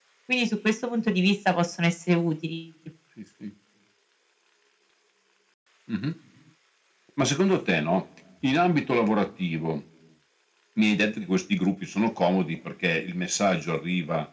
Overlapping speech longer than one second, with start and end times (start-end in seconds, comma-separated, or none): none